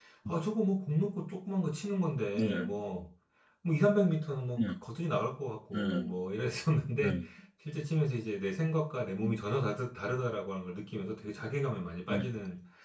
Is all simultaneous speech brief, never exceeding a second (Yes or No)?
Yes